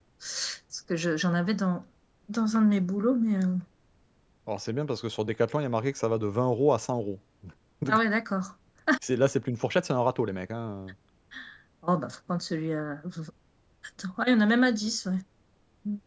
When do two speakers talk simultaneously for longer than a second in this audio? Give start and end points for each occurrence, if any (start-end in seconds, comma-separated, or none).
none